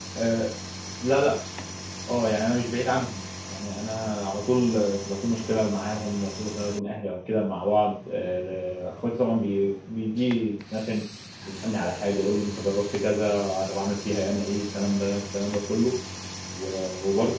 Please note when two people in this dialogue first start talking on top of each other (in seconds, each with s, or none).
none